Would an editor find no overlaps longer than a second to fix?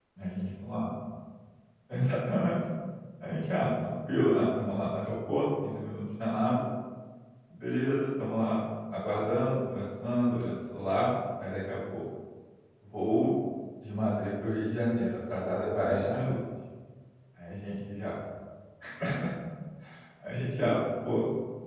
No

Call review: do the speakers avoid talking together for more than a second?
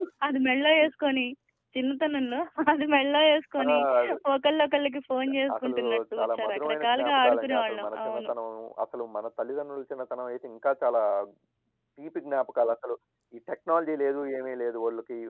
No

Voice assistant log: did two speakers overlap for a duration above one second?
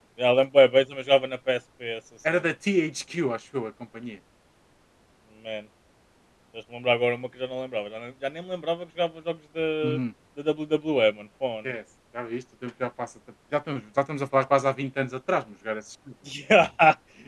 No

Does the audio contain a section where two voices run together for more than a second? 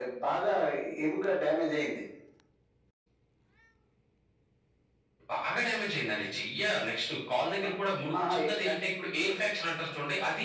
No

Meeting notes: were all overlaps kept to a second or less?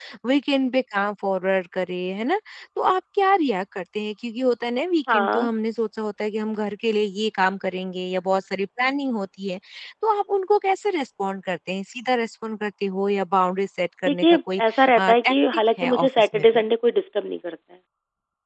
No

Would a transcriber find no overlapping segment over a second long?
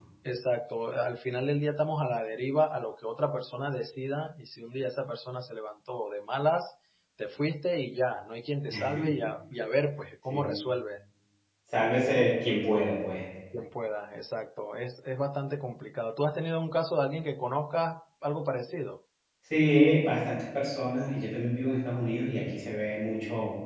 Yes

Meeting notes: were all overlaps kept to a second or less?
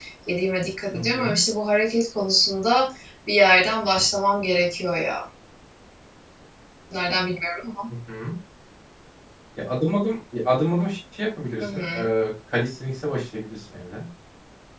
Yes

